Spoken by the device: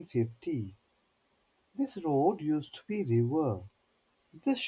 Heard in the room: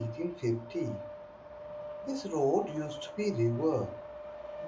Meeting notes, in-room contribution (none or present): none